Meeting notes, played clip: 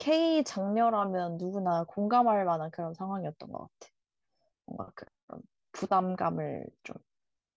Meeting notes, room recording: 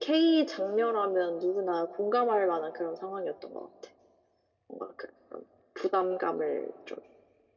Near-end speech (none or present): none